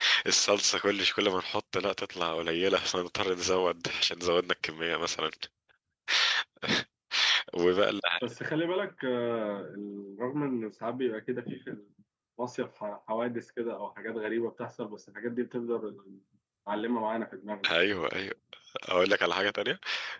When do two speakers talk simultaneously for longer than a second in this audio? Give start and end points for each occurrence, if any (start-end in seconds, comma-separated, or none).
none